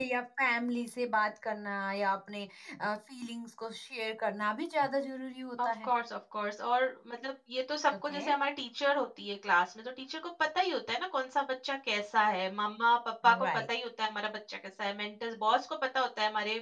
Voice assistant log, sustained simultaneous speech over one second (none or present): none